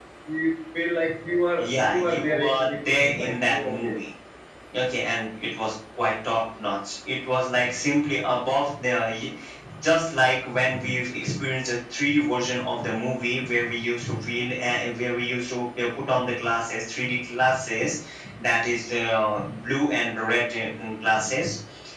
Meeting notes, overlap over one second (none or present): present